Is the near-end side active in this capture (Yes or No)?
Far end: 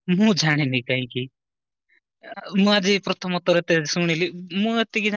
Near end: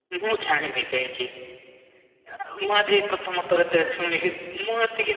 No